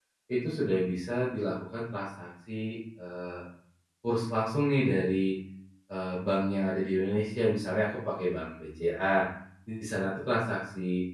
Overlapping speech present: No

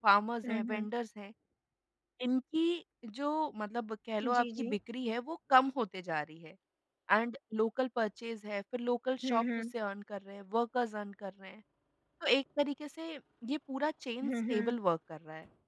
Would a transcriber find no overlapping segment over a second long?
Yes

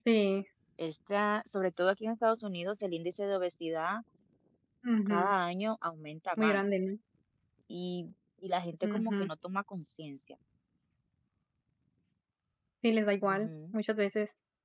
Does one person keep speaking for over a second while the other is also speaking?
No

